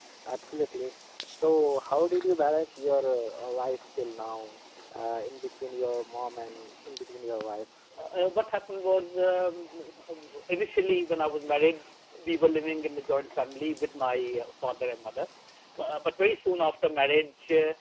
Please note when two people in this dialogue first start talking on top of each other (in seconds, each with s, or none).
none